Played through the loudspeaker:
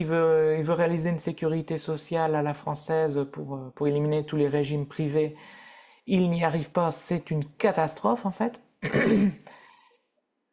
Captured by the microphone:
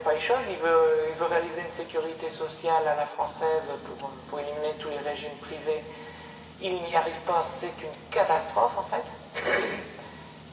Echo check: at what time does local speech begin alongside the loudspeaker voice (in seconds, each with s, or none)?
none